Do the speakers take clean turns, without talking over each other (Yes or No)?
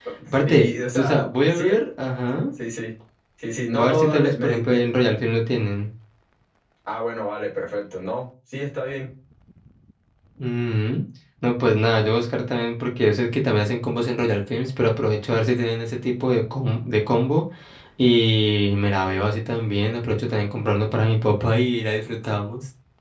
No